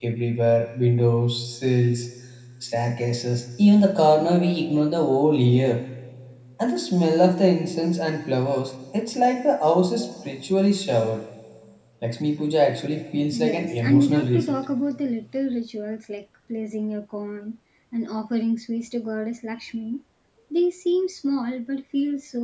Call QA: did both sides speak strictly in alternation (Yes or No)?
No